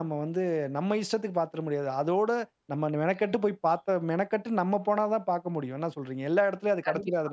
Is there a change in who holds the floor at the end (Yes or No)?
Yes